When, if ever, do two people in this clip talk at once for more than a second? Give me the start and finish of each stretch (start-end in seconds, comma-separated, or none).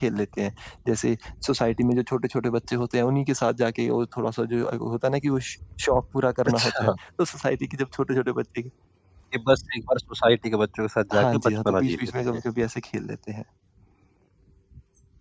11.1-12.4